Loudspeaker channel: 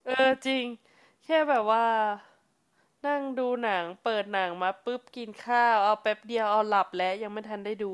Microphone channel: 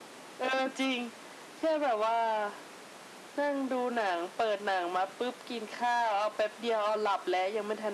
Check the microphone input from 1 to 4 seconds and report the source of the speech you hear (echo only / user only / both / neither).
echo only